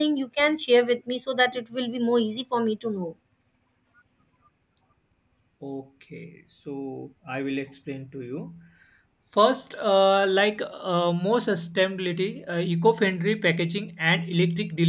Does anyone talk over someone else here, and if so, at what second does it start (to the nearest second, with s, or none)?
none